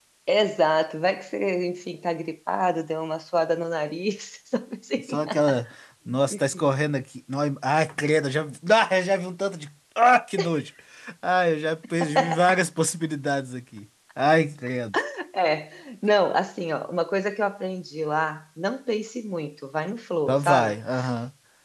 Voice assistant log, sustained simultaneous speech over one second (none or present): none